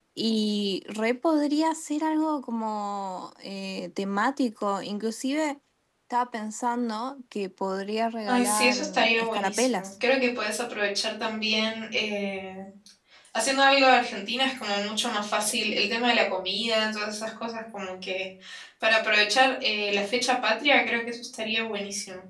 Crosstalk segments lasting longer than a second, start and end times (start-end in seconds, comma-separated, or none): 8.3-9.9